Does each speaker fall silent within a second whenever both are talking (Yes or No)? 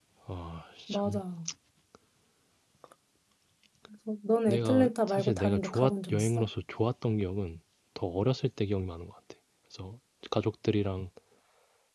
No